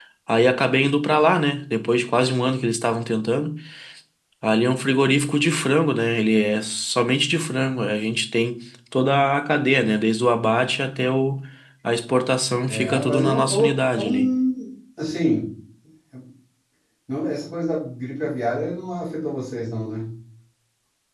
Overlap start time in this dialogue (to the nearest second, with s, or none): 13 s